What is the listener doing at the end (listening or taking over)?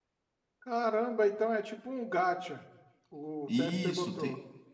taking over